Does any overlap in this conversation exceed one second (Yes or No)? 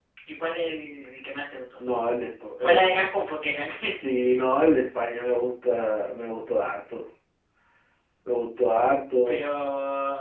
No